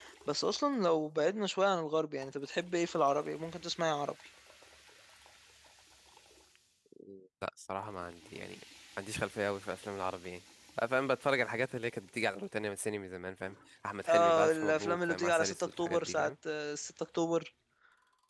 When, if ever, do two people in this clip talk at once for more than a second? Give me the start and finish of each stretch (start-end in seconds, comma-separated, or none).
14.1-16.3